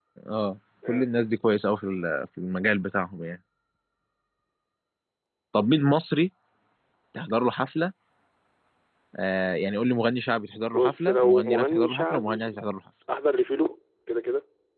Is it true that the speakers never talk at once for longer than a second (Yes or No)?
No